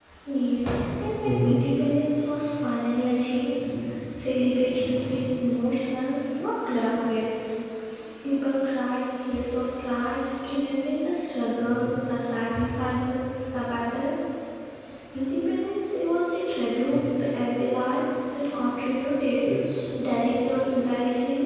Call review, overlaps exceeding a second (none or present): none